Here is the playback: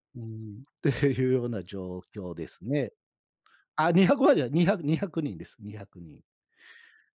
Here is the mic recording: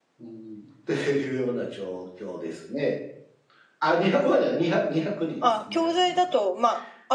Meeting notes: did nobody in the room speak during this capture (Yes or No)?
No